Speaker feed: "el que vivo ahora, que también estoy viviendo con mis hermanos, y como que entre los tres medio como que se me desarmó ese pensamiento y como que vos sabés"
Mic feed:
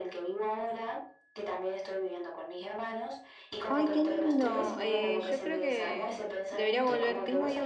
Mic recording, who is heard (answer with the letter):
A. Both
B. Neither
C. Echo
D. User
A